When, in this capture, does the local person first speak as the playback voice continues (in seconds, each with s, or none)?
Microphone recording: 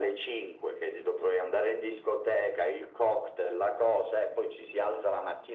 none